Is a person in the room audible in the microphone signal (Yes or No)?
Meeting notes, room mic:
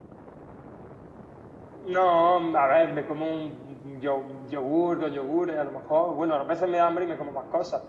Yes